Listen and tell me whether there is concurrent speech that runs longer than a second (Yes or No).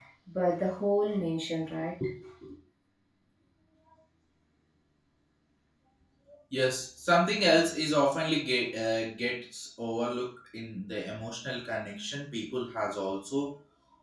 No